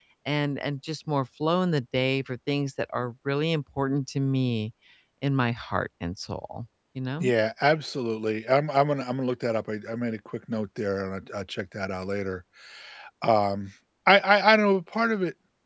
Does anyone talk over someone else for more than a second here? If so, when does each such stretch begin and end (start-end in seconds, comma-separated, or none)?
none